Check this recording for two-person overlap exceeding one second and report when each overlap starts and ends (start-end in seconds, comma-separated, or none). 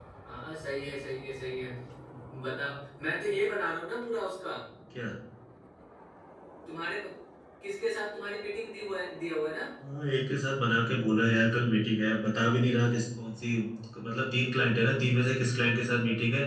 none